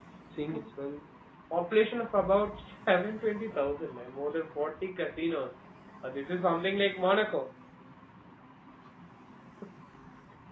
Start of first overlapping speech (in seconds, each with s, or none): none